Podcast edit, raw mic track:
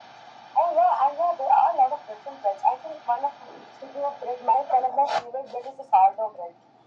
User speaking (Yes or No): No